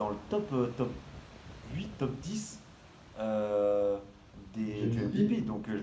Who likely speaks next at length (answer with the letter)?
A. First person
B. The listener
A